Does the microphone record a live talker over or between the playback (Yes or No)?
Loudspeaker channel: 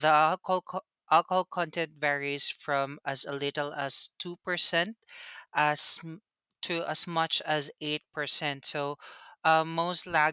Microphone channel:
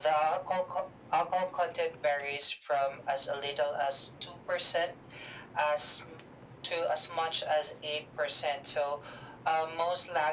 No